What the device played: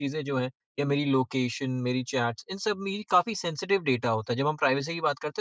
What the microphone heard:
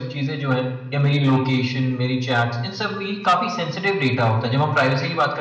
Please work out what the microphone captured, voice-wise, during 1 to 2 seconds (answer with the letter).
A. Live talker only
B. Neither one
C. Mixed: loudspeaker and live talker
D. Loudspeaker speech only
C